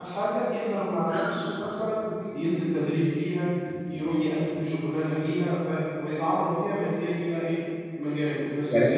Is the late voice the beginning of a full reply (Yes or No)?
No